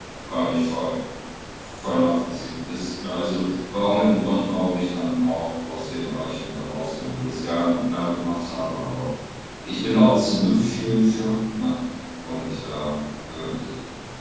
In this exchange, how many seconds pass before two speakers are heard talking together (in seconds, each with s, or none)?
none